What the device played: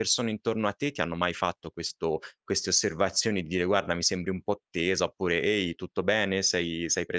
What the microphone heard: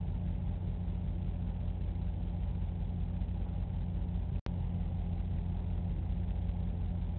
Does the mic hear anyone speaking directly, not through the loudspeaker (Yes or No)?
No